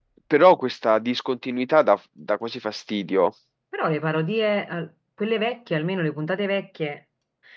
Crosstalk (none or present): none